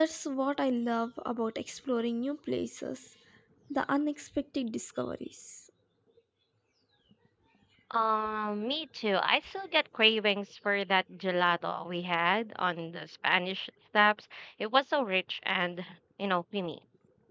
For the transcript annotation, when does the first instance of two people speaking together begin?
none

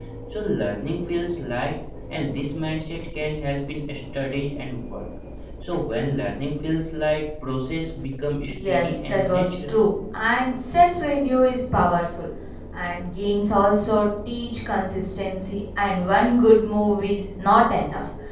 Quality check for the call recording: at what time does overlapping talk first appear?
8 s

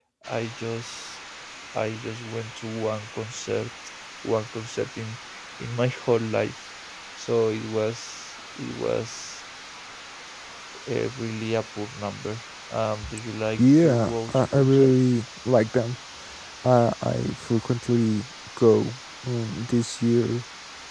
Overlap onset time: 14 s

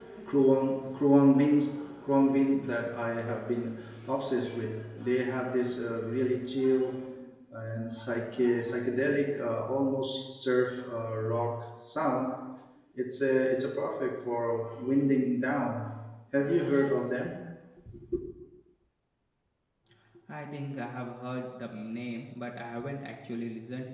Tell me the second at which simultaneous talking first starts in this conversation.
none

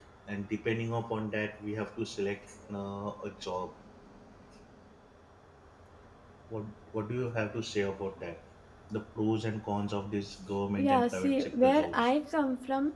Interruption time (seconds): 11 s

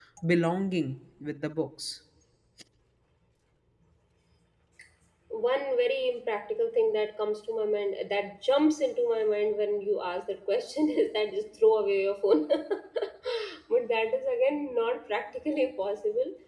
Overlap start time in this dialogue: none

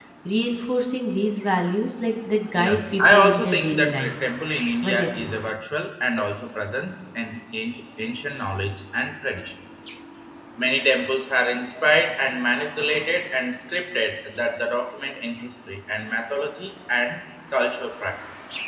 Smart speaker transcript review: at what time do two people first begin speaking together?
3 s

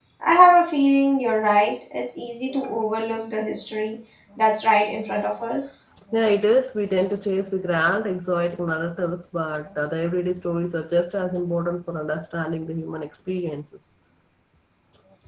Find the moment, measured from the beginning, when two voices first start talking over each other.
none

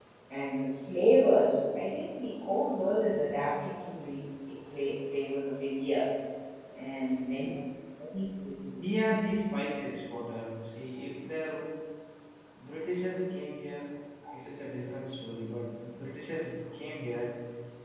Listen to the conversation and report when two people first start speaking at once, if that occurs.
none

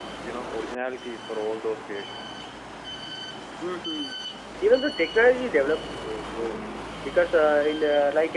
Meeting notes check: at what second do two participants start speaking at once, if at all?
none

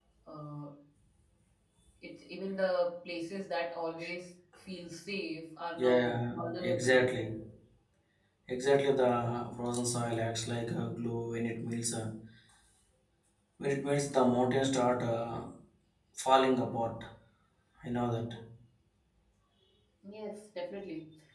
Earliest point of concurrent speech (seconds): 6 s

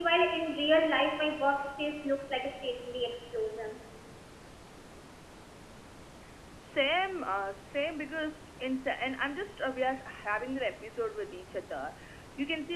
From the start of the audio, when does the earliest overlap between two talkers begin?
none

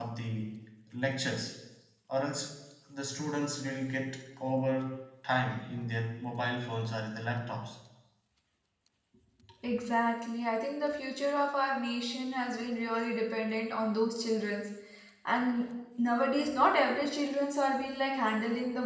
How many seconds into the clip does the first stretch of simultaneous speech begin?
none

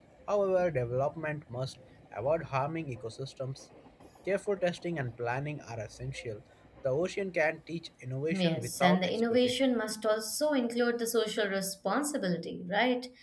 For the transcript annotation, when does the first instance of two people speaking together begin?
8 s

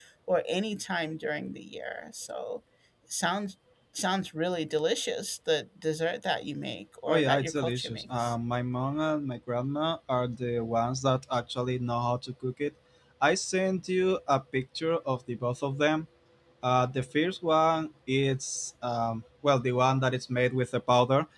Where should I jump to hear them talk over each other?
7 s

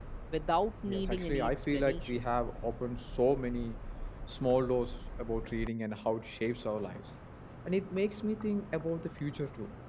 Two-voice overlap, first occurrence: 1 s

